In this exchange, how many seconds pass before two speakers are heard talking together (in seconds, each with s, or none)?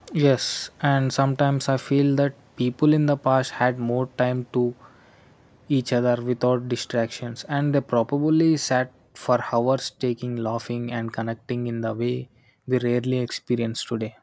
none